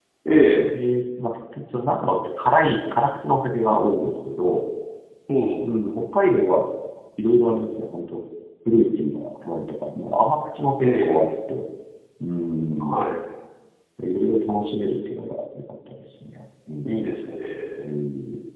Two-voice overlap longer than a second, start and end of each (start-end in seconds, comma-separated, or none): none